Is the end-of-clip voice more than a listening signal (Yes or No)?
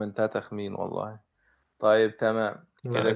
No